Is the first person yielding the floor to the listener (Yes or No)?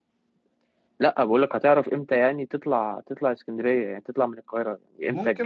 Yes